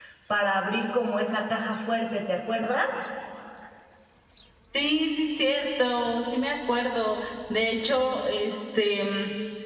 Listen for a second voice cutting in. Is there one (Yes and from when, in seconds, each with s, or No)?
No